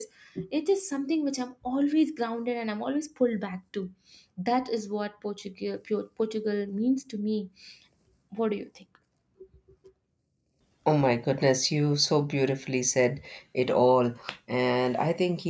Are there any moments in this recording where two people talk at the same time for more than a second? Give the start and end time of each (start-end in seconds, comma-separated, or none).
none